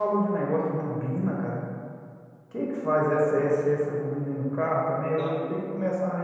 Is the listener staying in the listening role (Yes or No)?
Yes